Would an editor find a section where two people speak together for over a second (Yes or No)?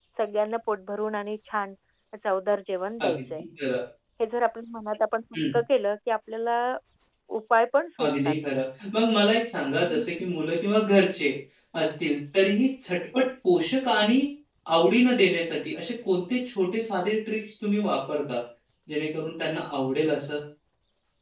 No